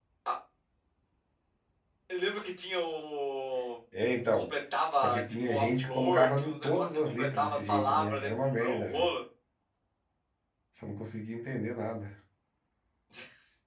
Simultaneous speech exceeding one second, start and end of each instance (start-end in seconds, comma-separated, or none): 4.9-9.1